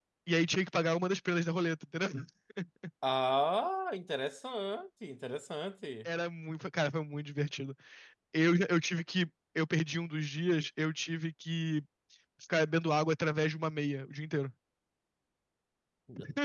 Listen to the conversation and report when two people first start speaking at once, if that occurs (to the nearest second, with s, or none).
none